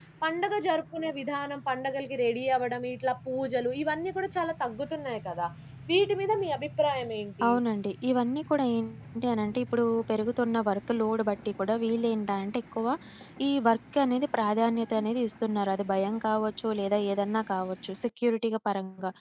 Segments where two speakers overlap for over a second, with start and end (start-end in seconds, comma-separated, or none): none